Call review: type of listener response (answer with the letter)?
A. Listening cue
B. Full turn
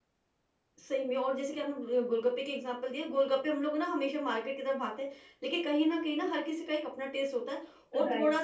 A